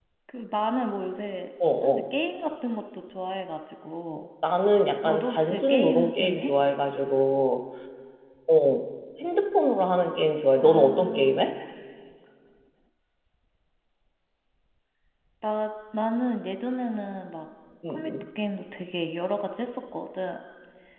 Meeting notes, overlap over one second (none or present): present